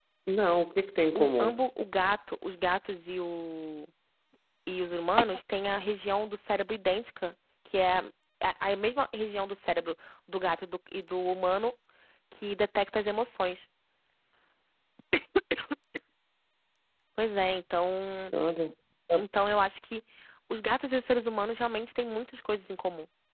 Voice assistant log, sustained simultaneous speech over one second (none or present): none